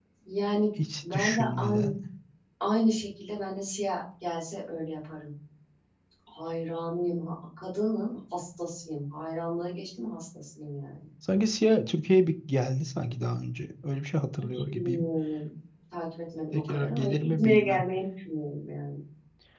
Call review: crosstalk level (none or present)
present